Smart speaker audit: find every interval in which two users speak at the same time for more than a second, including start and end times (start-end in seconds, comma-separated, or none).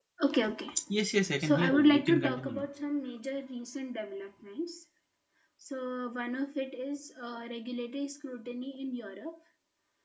1.4-2.6